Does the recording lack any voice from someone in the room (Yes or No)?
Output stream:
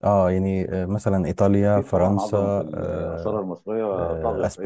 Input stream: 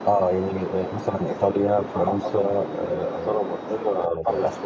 Yes